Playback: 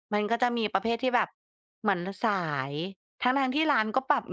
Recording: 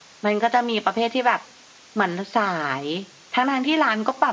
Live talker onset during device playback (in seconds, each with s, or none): none